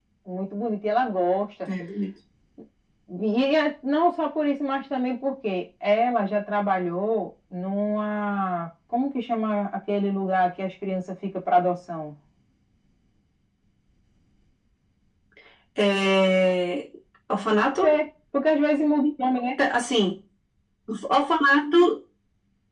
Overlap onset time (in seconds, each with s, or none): none